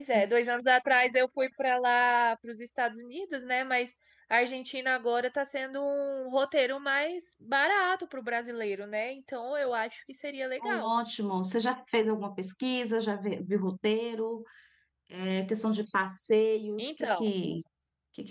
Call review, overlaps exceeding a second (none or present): none